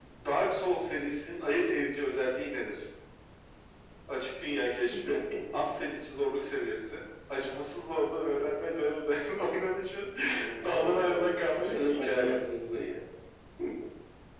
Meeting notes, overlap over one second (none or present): present